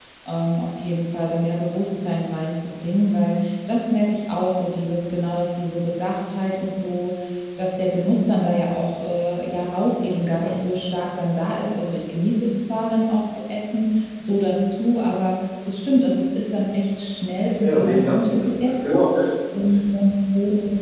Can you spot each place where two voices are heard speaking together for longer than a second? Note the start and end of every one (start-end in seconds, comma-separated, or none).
17.6-19.2